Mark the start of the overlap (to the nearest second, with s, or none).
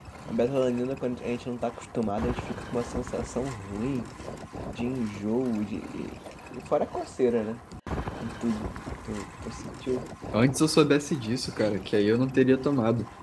none